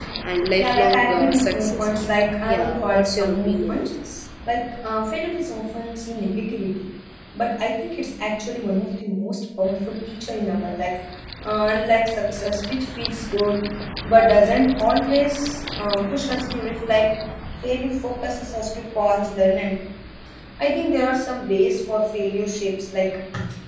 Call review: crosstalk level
present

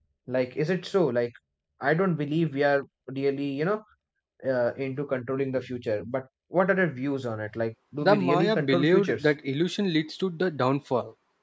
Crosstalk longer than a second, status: present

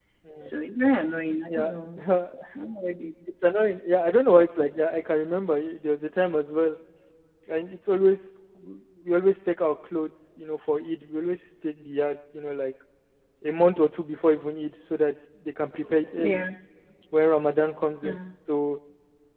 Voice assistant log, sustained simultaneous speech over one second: none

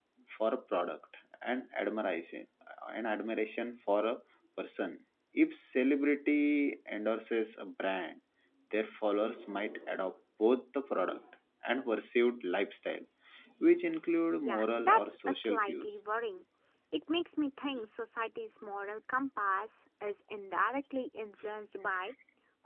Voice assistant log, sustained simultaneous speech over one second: present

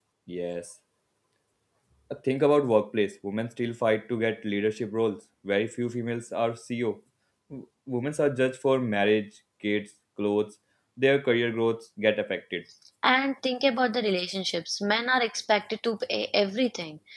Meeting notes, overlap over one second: none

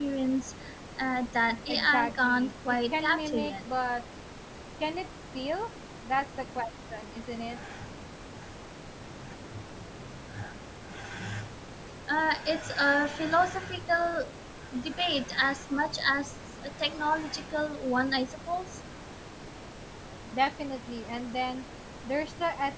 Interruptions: present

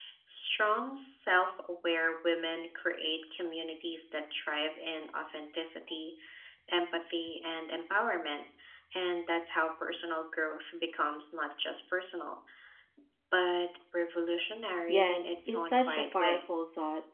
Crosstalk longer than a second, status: present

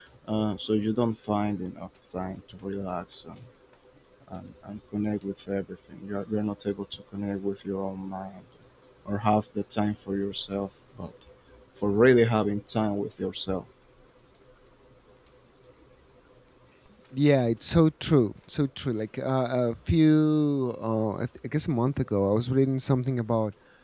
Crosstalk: none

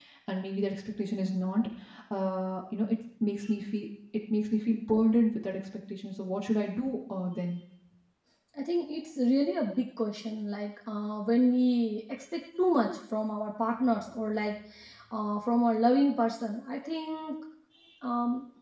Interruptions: none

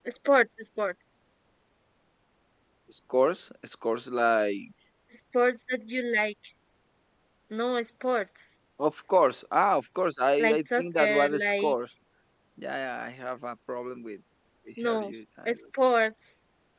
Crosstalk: present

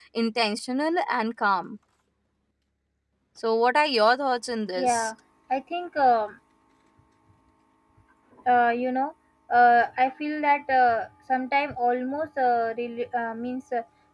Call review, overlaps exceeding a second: none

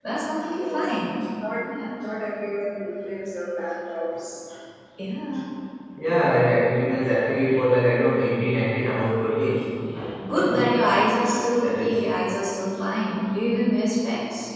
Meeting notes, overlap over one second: none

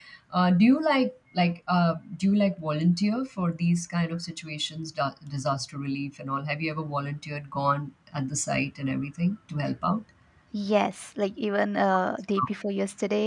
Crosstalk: none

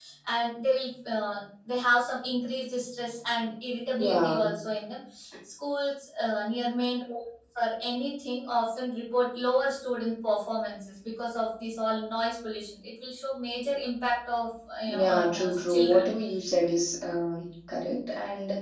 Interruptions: present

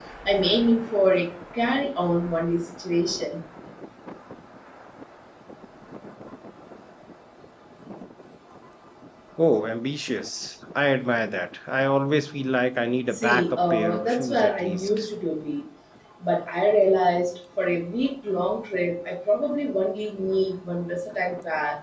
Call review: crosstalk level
present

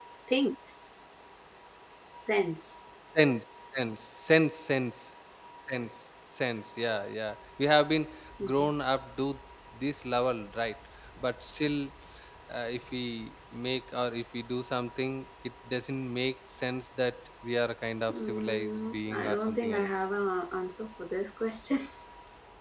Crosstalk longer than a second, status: present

